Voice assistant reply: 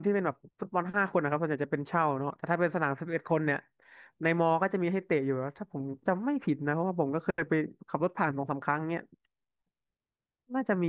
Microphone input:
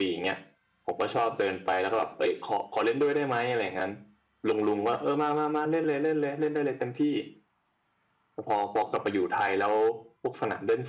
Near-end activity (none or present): present